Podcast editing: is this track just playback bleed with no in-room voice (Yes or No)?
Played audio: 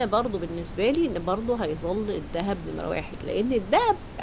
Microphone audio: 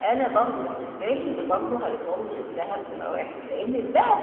No